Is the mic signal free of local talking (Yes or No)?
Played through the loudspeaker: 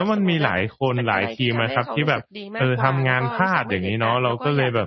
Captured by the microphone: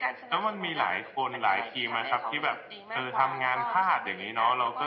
Yes